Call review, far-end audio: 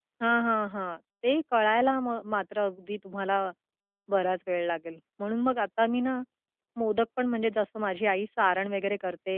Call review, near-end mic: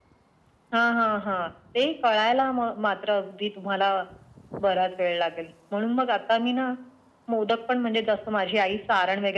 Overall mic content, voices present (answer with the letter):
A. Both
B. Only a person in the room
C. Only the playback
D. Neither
C